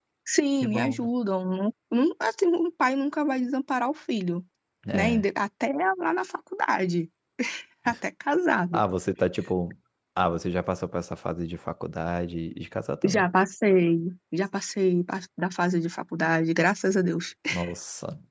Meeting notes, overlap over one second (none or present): none